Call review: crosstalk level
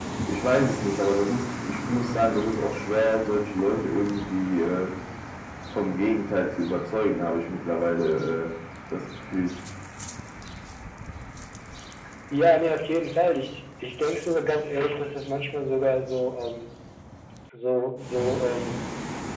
none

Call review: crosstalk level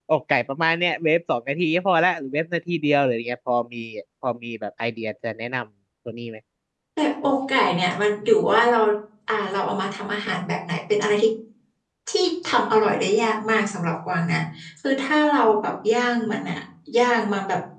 none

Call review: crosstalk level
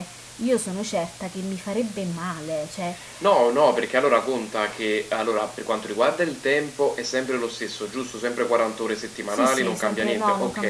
present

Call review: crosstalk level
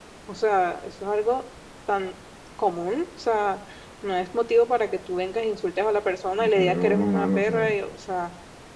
present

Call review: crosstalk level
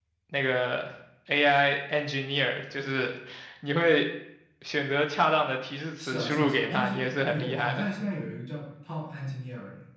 present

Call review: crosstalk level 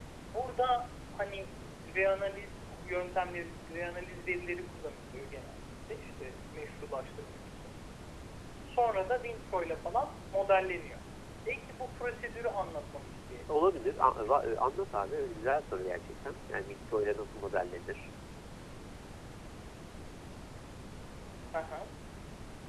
present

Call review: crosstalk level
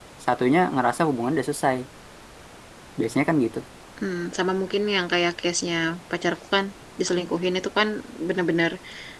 none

